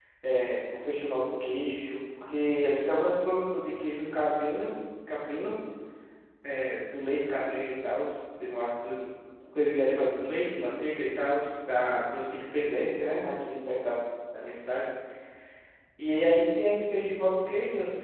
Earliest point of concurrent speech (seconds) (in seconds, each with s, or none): none